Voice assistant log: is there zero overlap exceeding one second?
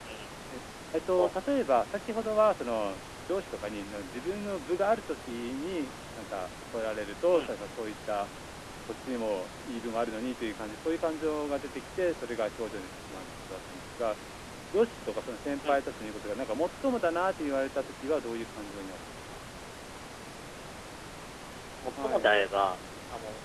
Yes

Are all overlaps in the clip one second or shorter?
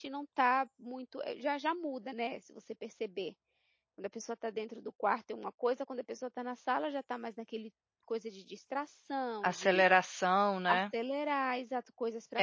Yes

